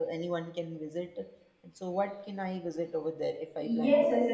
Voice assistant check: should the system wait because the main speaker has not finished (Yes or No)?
No